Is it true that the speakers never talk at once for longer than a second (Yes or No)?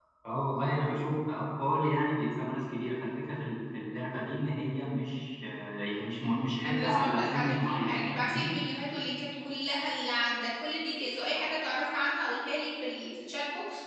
No